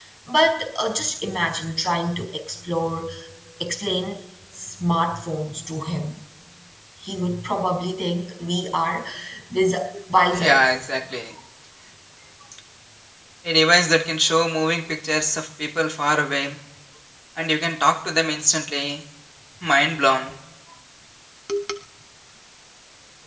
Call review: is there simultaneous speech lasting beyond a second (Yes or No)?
No